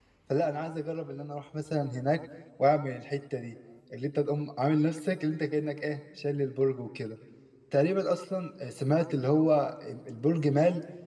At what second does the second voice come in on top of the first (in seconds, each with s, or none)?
none